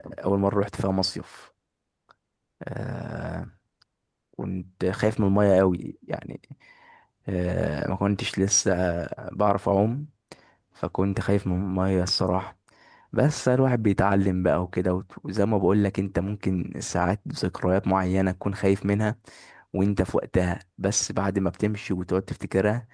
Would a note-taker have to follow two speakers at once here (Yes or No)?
No